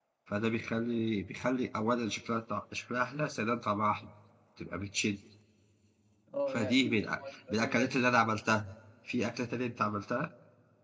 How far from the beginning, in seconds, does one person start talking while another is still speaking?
6.5 s

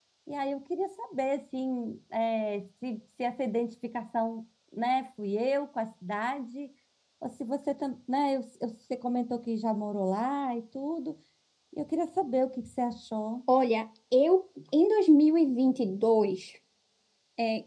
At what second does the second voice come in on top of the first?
none

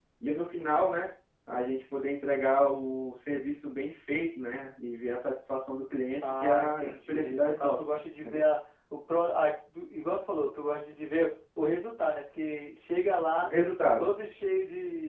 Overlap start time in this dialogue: 6.2 s

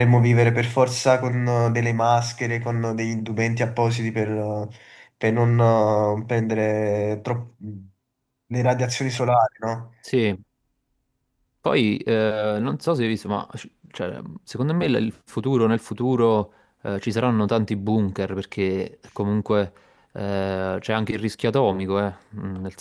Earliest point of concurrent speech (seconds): none

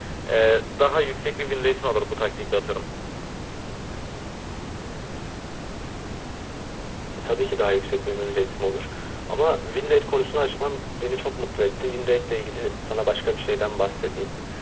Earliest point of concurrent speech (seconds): none

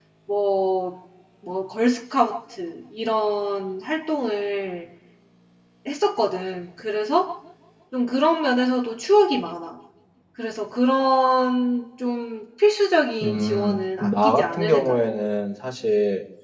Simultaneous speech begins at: 13.2 s

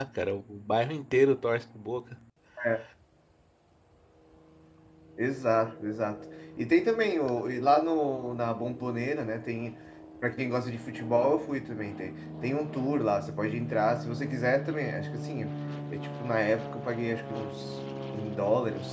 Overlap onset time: none

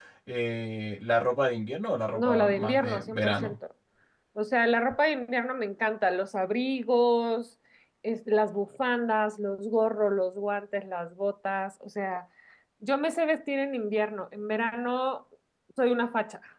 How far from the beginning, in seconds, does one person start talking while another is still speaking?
2.1 s

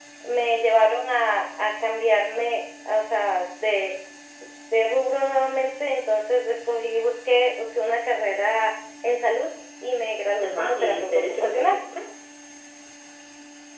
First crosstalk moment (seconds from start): 10.4 s

